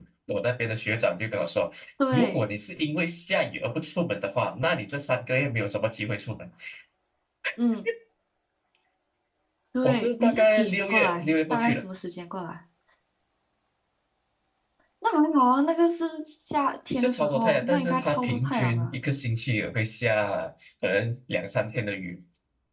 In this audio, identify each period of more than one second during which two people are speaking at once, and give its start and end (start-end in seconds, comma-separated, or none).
9.8-11.8, 16.9-19.0